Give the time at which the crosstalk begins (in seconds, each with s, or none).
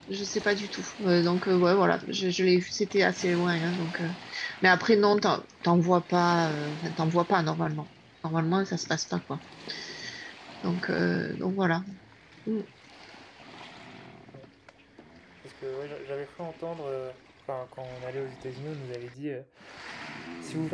none